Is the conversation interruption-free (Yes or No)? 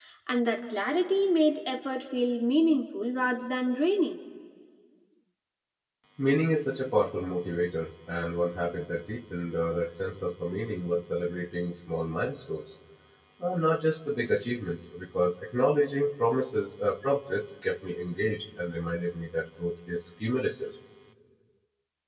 Yes